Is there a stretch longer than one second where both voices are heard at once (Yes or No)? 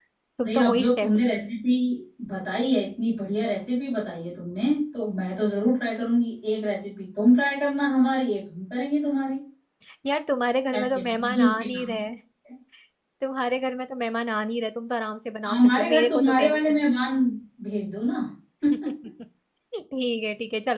Yes